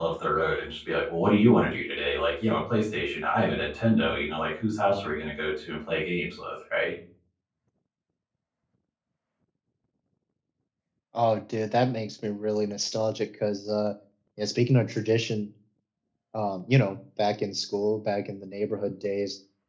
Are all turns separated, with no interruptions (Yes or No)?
Yes